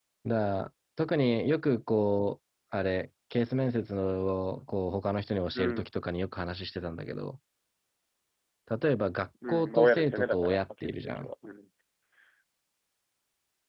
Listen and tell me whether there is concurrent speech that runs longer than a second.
Yes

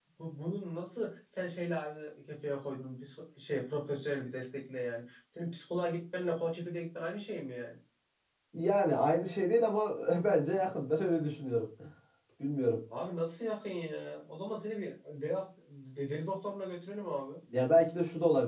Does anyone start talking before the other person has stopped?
No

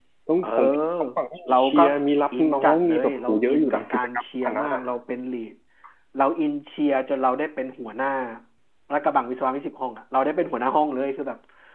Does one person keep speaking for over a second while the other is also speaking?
Yes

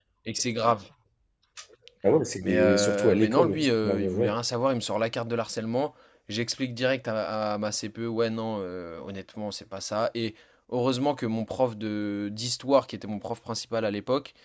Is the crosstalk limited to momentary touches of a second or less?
No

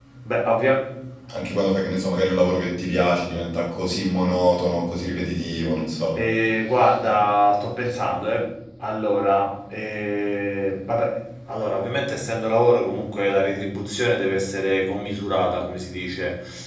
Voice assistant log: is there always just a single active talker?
Yes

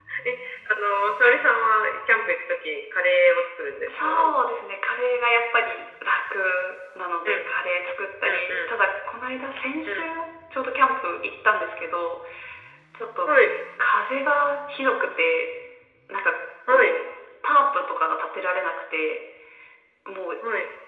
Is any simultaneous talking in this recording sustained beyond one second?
No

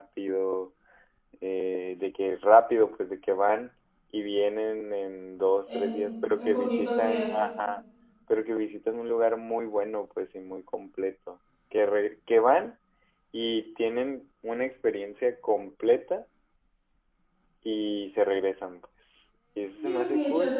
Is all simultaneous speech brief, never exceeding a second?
No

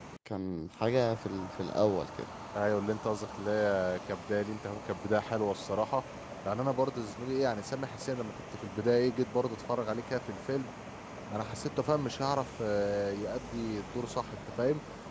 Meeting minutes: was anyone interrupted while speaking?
No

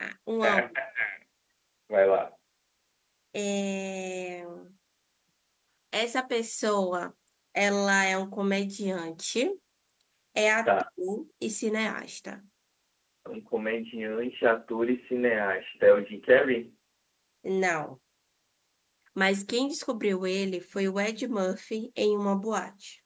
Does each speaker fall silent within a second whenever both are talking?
Yes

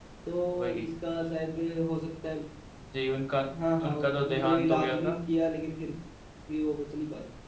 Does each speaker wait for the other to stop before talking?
No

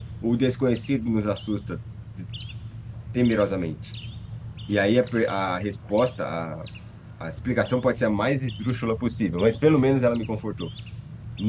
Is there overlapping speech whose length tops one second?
No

